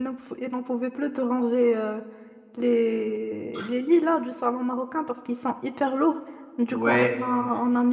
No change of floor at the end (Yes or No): Yes